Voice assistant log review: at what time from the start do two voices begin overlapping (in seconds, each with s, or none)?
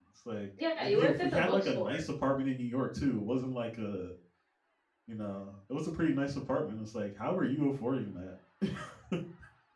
0.8 s